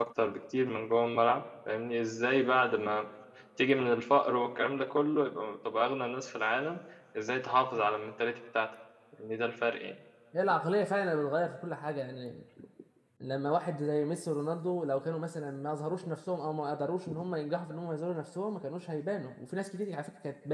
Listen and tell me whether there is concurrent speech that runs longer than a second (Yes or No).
No